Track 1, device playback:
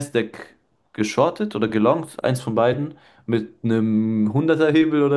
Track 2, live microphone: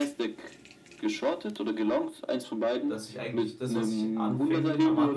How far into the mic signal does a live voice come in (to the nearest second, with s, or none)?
3 s